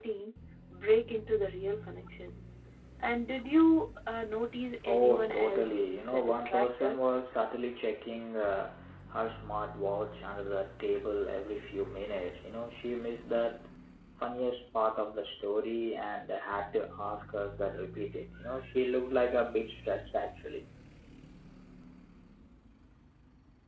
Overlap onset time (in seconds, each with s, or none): 4.9 s